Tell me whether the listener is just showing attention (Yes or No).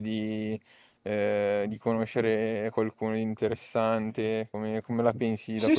No